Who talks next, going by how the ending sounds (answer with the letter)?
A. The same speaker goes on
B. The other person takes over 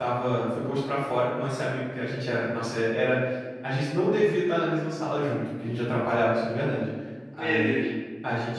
A